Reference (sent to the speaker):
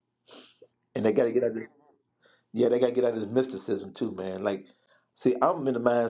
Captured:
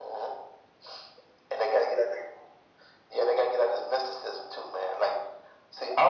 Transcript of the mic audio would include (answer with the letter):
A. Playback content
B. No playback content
A